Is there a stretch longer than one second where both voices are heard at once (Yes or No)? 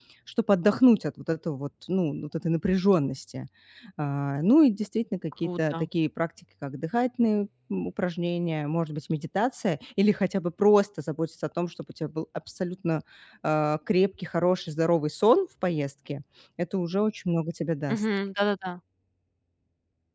No